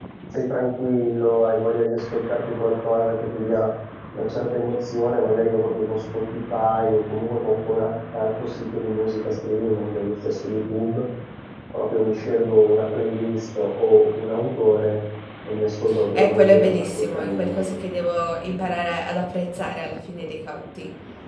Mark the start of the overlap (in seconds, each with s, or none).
16.1 s